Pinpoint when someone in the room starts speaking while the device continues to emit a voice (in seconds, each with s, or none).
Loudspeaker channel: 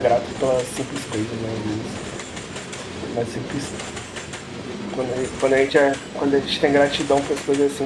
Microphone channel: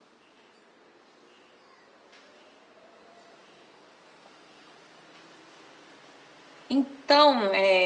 6.7 s